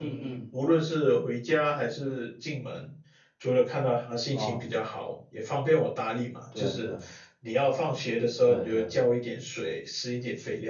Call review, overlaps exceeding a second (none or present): none